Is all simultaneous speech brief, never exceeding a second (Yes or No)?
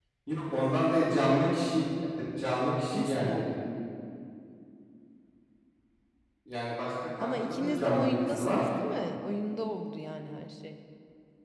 No